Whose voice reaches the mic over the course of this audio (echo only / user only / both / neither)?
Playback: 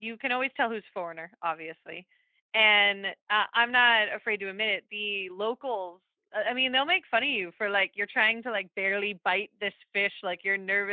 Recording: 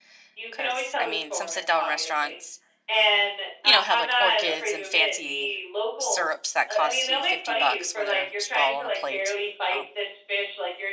both